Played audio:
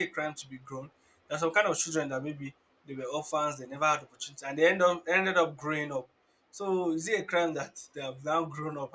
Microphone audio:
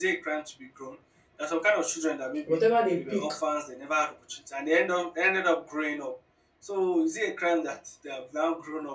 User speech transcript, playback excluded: whatever they pick

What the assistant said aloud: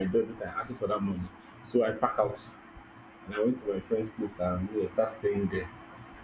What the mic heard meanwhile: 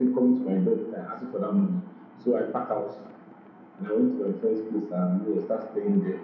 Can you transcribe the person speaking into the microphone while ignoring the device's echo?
none

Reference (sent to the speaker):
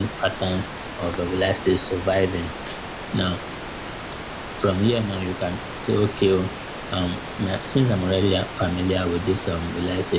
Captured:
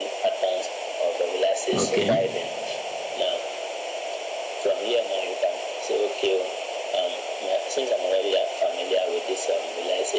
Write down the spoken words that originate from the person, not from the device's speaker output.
Okay,

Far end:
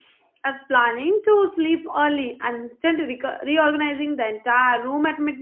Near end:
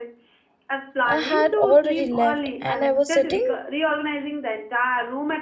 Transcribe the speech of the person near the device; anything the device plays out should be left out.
uh, had already left, and I was sitting

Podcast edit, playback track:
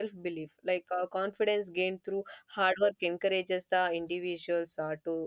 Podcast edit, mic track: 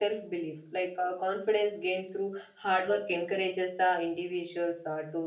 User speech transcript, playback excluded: none

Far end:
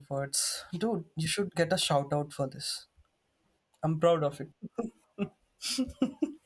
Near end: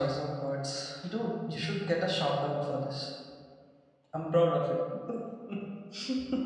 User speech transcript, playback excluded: none

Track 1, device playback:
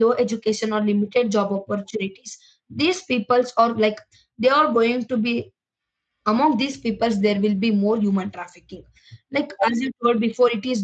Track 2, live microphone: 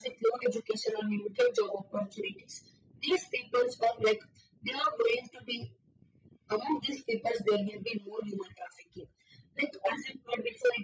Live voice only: none

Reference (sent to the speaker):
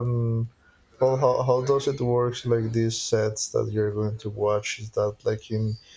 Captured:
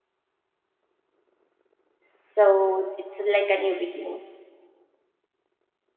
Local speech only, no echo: so it's like a new beginning.

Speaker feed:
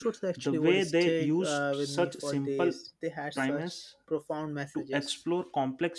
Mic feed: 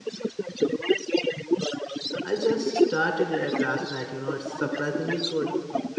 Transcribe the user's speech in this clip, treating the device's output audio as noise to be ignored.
I just started it last night. You know, it's surprisingly good,

